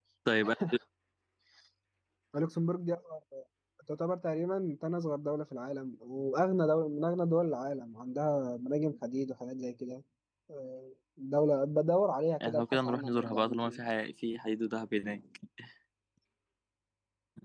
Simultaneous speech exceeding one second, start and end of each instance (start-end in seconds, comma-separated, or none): 12.5-13.8